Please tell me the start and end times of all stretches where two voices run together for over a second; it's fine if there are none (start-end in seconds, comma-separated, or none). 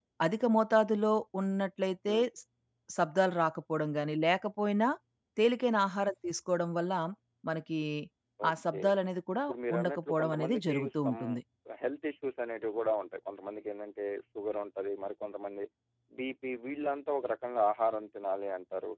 9.4-11.2